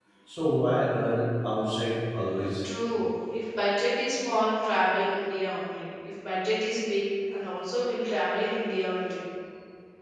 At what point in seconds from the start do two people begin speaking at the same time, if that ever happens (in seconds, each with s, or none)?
none